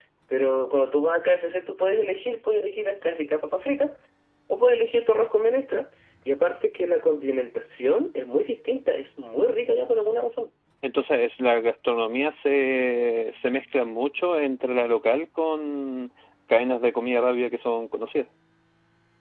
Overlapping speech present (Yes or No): No